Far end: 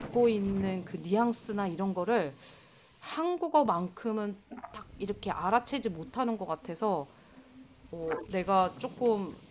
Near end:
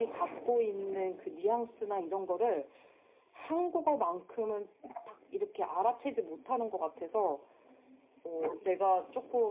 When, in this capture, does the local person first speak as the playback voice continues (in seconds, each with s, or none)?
none